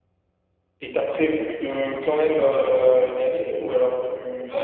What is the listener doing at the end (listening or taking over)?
taking over